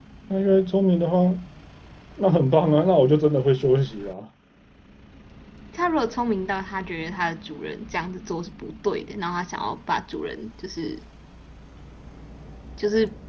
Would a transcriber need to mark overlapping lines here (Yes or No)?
No